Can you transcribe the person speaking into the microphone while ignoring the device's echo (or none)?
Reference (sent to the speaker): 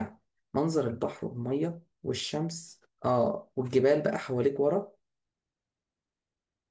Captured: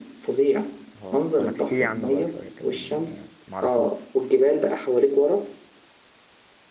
اه طب ما تحكي لي عنه بقى شوية كده يعني معرفوش